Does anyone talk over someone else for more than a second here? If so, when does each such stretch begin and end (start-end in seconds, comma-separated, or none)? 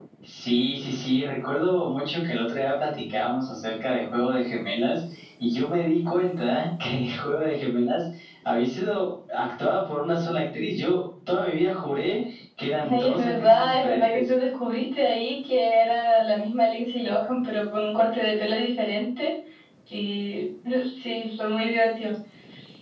12.9-14.3